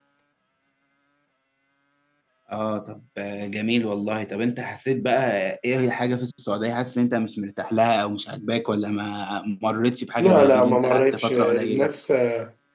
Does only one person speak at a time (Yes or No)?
No